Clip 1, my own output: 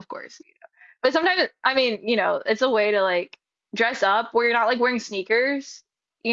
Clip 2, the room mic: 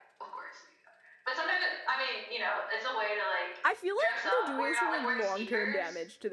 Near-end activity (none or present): present